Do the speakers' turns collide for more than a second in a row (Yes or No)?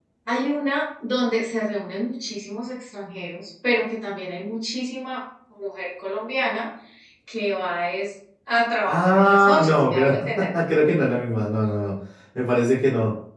Yes